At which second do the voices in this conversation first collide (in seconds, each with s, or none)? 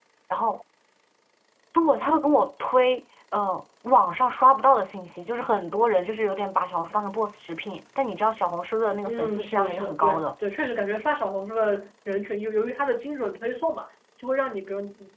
9.1 s